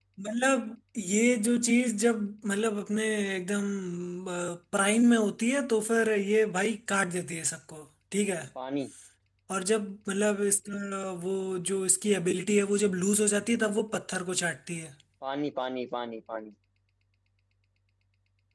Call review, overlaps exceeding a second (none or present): none